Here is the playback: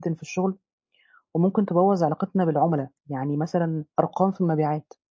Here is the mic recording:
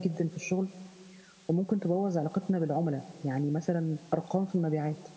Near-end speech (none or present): none